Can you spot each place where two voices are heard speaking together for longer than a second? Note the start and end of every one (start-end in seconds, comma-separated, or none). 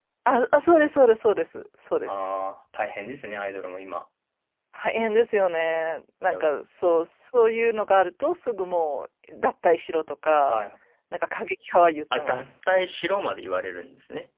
none